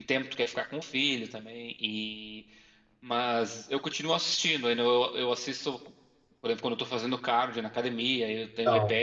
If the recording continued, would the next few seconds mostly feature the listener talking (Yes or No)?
No